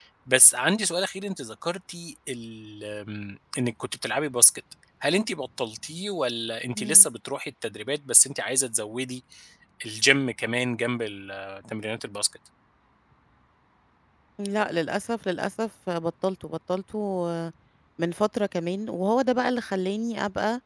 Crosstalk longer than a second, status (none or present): none